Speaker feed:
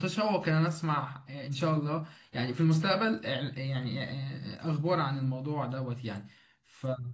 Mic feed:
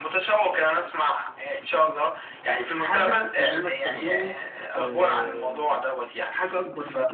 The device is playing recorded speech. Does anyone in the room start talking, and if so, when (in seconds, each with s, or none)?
2.7 s